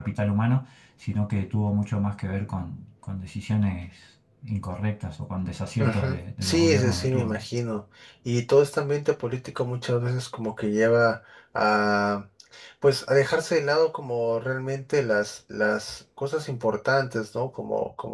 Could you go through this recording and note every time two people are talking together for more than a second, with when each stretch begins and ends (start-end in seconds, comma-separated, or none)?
5.8-7.4